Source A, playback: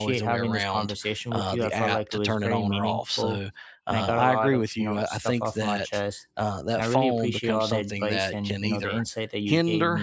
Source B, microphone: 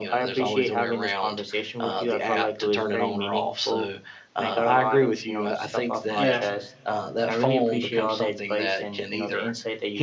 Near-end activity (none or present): present